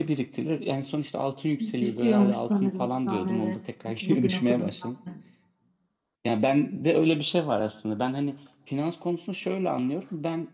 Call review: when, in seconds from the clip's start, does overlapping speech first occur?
1.6 s

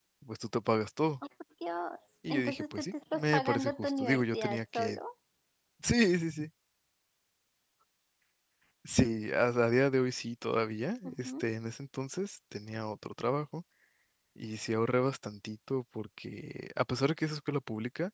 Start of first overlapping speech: 2.3 s

